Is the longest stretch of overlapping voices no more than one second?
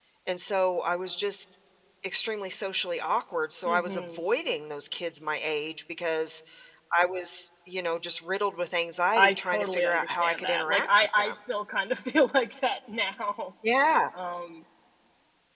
No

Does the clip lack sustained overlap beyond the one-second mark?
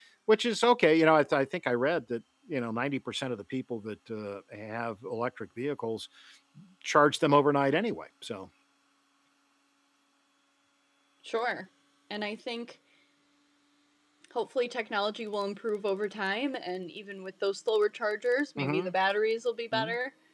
Yes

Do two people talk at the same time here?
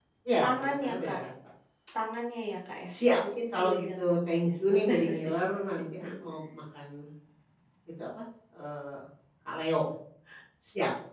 Yes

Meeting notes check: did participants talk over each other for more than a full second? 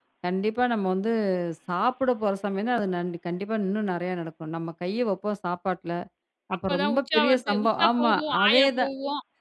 Yes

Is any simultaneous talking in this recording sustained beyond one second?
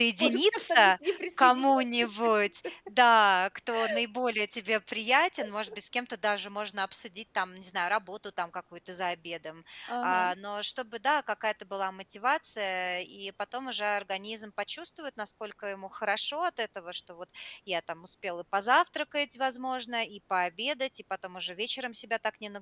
Yes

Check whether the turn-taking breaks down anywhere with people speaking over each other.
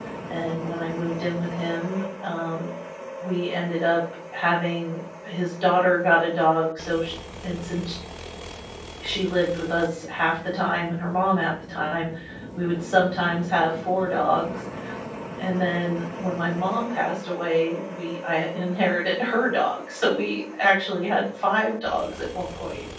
No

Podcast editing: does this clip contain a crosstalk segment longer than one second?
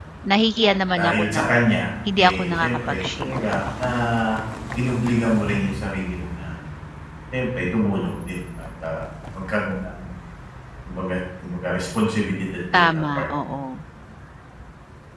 Yes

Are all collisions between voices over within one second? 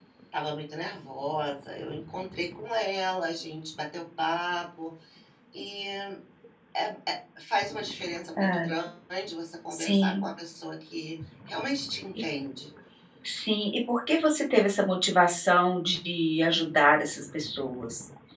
Yes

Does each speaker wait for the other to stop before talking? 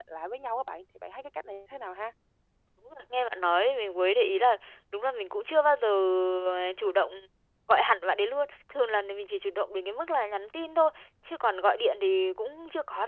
Yes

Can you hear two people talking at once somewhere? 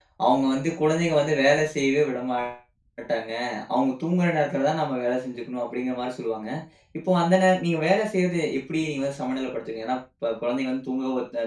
No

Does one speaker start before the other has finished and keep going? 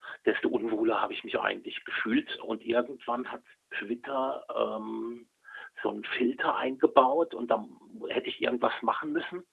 No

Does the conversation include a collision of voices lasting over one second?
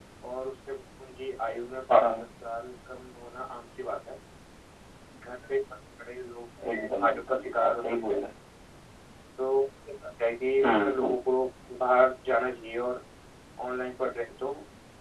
Yes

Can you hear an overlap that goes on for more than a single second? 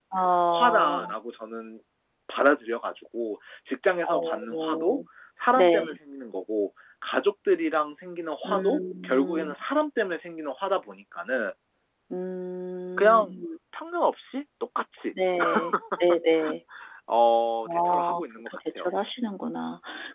Yes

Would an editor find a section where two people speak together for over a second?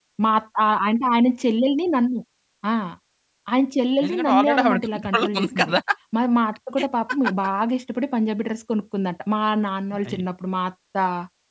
Yes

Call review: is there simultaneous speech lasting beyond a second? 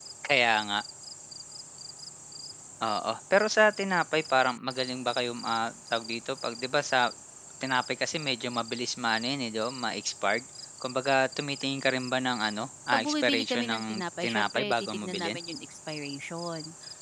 Yes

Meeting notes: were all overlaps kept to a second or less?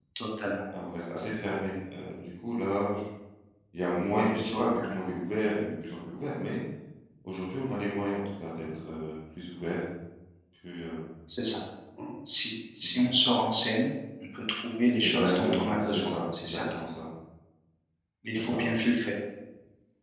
No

